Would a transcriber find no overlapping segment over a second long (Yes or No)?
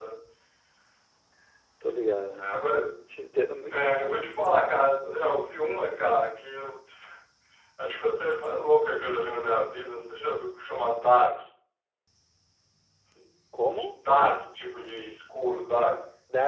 Yes